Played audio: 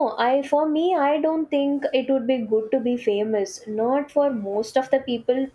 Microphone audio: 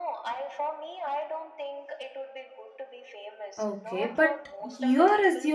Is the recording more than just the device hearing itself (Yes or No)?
Yes